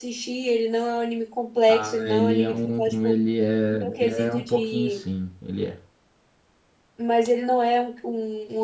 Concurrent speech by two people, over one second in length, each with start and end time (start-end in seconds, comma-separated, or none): 1.7-3.2, 3.7-5.0